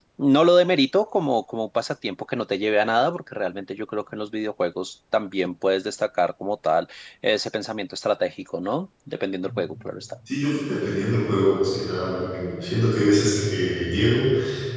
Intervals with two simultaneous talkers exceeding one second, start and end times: none

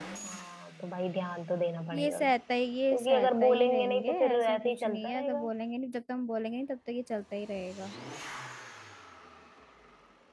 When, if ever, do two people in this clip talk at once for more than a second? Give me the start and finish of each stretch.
2.9-5.5

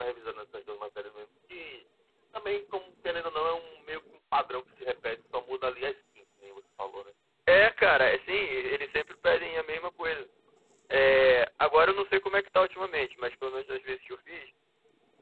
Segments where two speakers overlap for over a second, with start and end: none

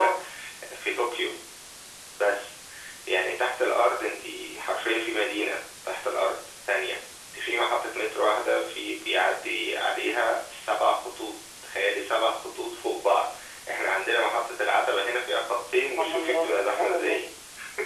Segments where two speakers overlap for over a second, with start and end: 16.0-17.2

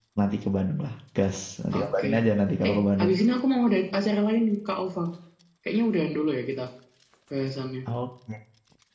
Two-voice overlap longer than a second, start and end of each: none

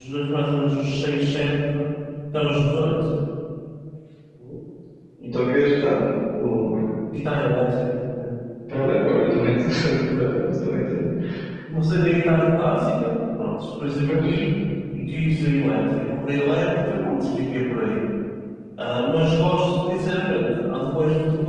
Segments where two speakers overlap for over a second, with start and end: none

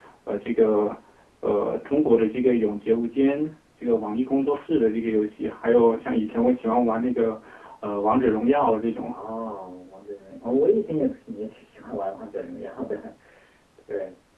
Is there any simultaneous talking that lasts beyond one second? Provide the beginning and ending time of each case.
none

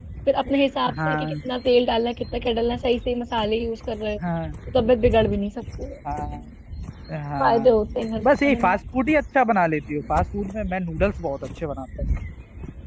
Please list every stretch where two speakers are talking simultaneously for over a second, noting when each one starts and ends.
none

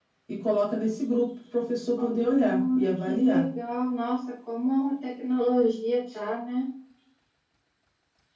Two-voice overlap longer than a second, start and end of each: 2.0-3.4

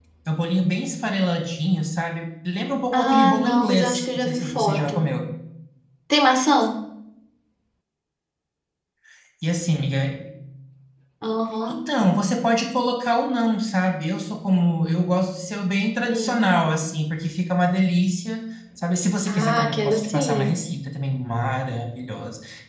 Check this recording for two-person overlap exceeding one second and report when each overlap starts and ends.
2.9-5.0, 19.3-20.6

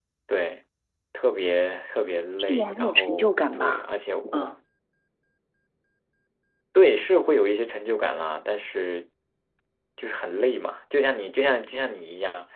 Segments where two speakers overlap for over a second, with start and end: 2.4-3.8

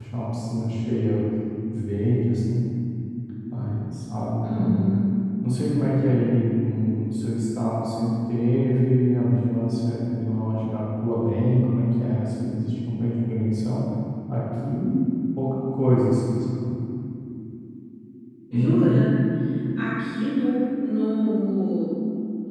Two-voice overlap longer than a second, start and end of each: none

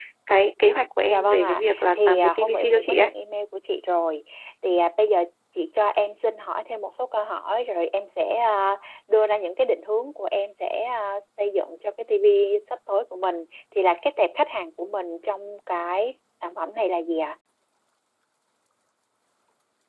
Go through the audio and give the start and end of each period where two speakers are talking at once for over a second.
1.1-3.1

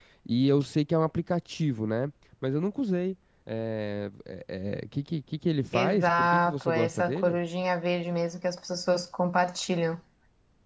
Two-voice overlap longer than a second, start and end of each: 5.7-7.4

